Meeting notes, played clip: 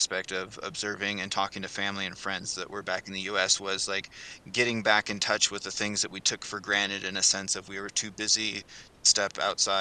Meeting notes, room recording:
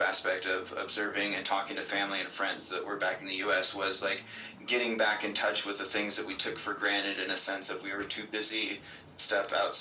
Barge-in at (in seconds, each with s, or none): none